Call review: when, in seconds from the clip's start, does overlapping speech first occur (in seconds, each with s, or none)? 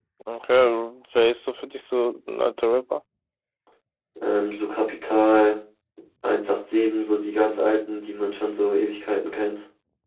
none